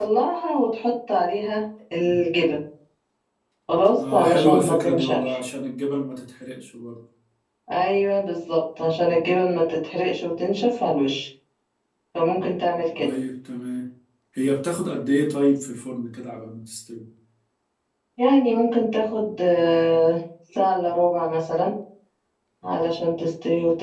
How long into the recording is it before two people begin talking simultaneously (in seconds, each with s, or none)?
4.1 s